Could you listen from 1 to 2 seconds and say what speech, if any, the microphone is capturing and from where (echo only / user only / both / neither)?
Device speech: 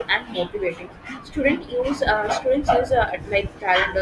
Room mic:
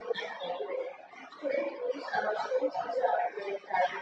echo only